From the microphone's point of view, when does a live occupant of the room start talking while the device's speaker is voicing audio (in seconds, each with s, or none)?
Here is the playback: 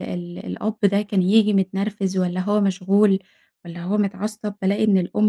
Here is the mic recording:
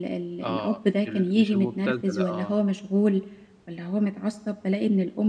0.4 s